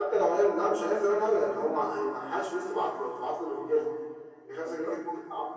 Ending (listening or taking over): listening